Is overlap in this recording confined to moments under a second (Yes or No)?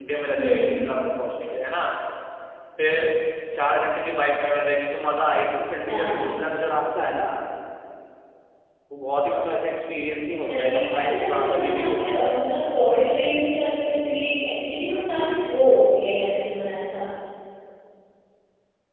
No